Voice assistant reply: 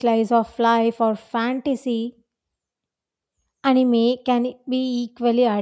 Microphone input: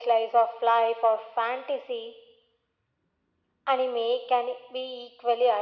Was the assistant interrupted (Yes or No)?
No